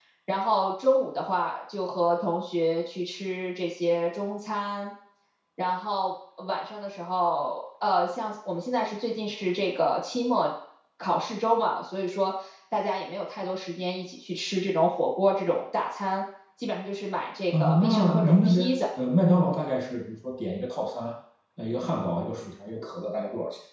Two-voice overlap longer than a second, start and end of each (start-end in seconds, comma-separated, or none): 17.5-18.8